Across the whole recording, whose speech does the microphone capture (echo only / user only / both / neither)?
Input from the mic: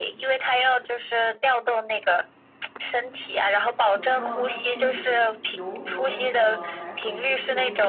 both